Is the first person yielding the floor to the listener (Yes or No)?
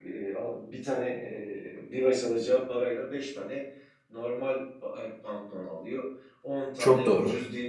No